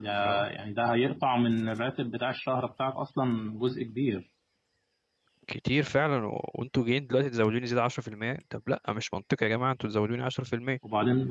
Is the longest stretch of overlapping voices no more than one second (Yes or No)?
Yes